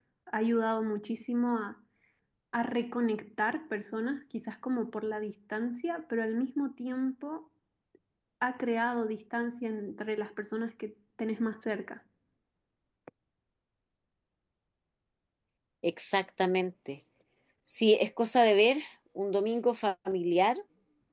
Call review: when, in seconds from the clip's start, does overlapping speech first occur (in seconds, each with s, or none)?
none